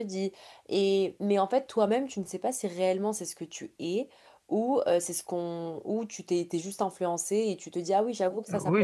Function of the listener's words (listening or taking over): taking over